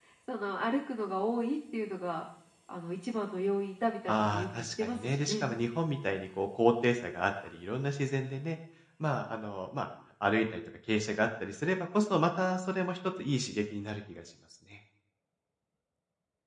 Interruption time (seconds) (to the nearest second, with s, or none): 4 s